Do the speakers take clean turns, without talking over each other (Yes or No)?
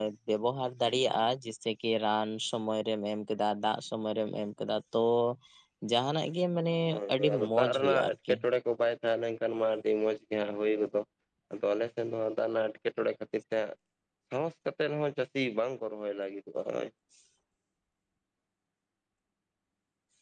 No